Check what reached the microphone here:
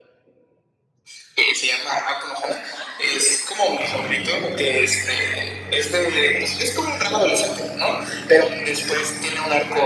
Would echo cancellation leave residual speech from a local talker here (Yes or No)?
No